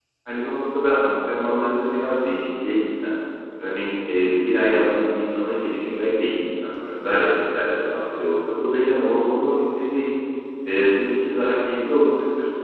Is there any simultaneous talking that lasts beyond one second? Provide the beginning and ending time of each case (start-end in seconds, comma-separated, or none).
none